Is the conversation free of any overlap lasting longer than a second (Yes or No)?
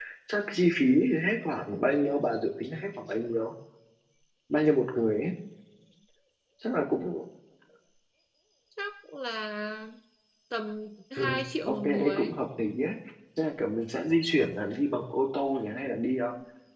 No